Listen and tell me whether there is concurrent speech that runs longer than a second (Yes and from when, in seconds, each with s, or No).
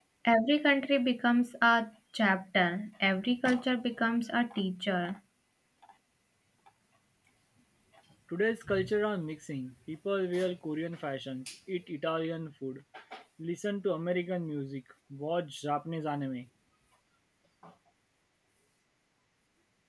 No